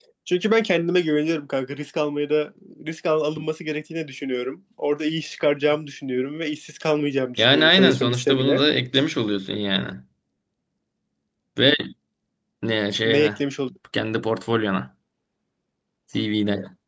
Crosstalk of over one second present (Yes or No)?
Yes